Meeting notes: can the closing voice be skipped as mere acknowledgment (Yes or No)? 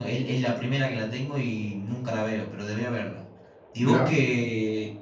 Yes